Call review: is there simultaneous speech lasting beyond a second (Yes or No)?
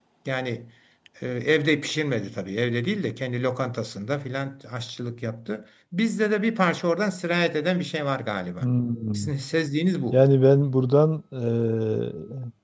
No